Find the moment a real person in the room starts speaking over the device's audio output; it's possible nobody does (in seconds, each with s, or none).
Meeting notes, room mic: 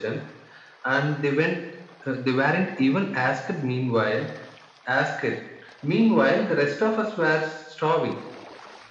none